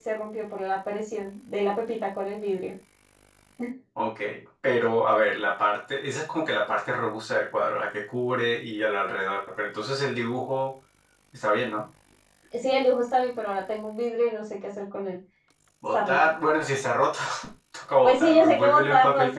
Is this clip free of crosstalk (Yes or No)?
No